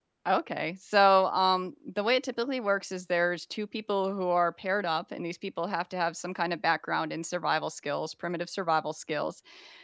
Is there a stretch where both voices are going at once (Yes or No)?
No